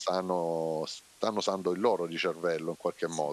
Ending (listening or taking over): taking over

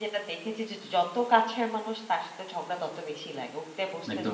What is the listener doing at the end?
taking over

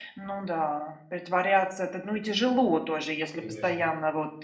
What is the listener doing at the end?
listening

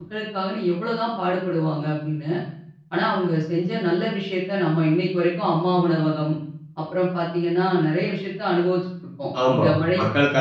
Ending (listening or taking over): taking over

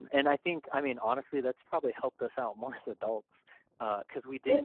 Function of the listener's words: listening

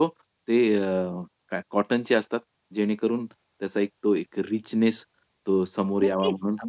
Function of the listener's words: taking over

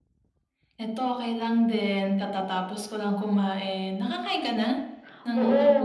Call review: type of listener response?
taking over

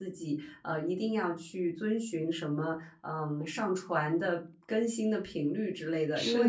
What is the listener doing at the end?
listening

